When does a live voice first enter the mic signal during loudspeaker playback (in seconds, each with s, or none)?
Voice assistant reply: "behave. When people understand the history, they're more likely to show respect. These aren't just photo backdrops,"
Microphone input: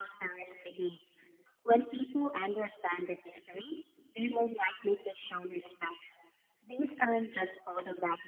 none